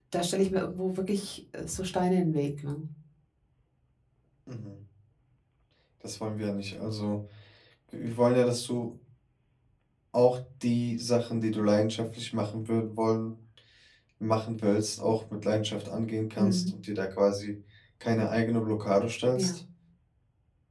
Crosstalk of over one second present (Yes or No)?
No